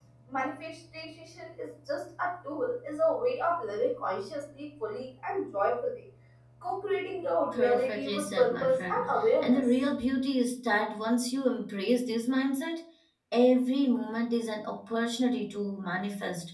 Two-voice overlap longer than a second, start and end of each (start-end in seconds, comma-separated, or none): 7.5-9.7